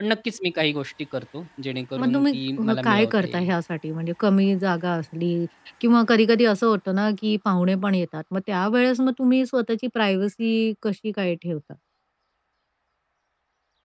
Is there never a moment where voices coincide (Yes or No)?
No